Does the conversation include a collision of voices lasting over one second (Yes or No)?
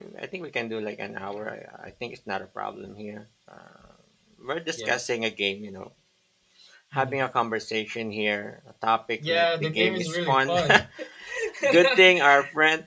Yes